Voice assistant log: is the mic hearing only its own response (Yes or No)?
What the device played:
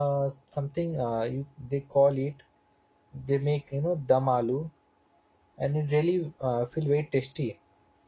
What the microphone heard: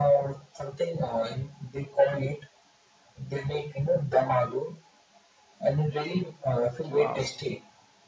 No